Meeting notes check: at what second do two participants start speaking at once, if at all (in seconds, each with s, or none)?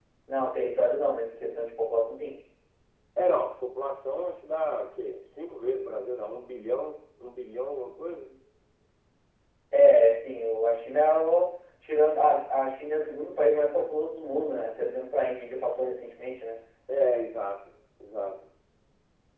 none